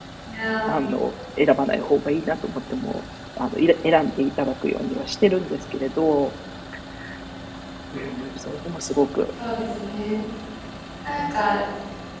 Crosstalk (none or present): none